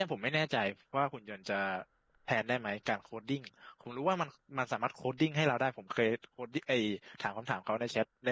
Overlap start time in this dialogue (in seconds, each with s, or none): none